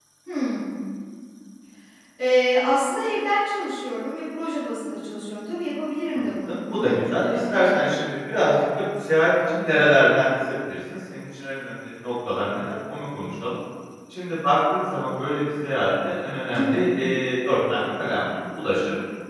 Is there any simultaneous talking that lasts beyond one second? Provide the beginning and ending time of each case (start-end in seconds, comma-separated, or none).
6.1-7.7